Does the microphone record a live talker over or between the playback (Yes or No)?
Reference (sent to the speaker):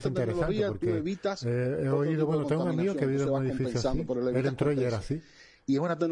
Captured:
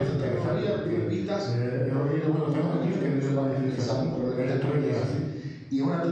No